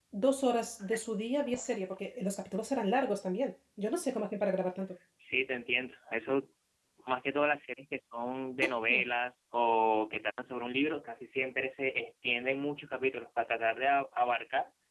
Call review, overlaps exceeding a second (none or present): none